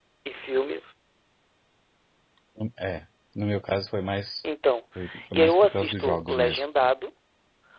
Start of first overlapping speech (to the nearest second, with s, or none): 5 s